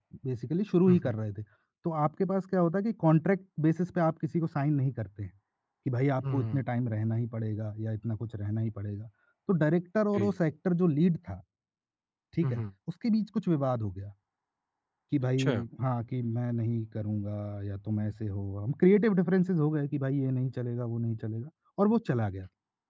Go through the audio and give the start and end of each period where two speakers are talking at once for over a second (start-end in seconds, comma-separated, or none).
none